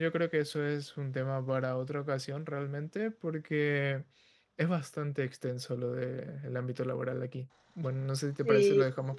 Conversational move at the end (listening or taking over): taking over